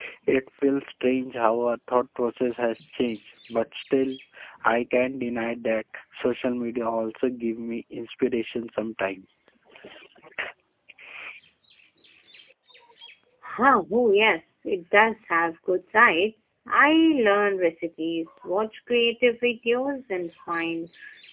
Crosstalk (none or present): none